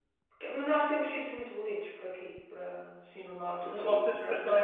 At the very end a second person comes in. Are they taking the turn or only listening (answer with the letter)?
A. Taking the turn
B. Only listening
A